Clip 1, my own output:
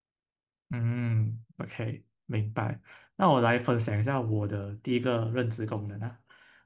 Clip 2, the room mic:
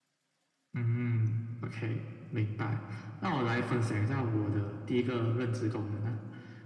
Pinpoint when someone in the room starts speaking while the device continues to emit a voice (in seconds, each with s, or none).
none